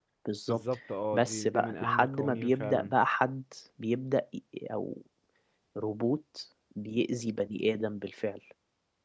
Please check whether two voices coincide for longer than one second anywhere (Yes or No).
Yes